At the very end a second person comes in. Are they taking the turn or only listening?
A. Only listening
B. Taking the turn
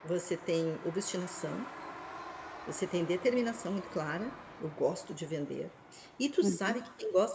A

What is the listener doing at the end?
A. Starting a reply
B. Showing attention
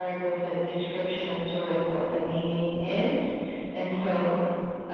B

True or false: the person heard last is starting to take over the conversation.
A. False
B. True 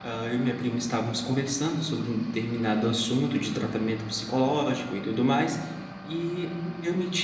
A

